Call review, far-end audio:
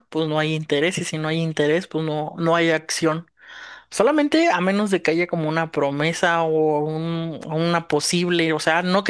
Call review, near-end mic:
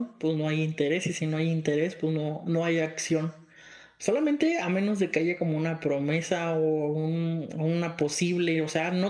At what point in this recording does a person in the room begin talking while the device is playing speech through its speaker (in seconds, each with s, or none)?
none